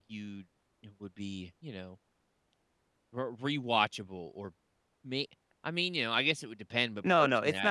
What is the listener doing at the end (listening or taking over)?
taking over